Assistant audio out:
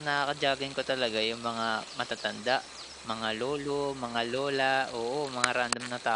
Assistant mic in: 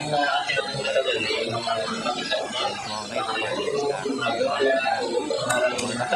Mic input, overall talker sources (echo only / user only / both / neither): both